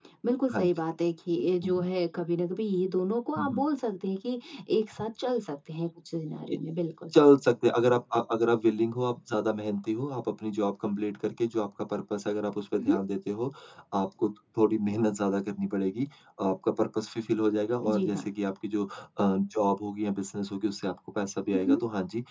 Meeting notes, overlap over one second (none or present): none